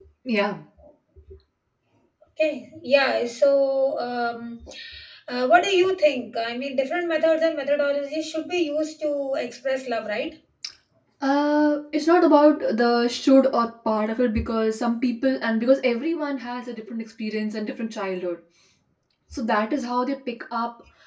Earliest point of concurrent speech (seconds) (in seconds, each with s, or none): none